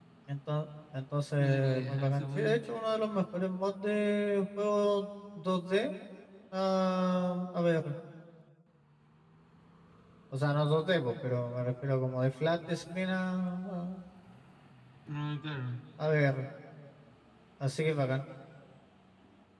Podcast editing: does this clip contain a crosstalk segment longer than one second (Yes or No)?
Yes